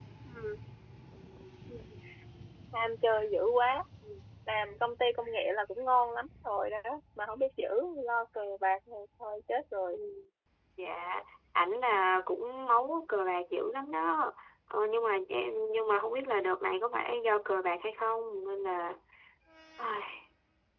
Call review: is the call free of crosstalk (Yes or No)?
Yes